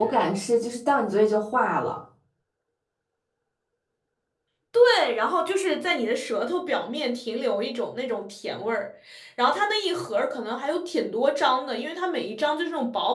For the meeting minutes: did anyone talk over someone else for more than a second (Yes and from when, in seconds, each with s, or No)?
No